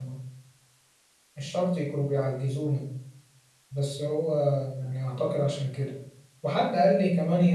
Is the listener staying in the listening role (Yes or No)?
Yes